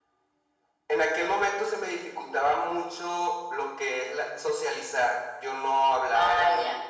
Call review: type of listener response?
taking over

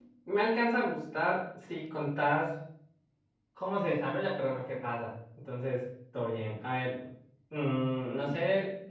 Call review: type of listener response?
listening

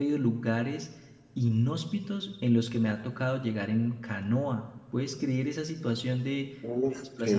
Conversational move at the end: taking over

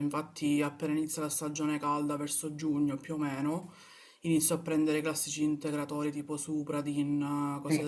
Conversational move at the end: taking over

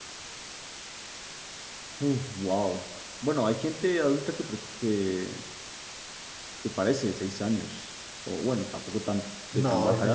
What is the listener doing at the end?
taking over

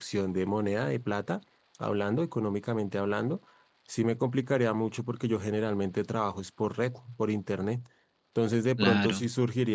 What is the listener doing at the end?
listening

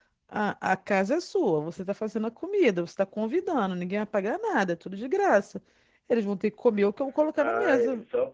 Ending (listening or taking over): taking over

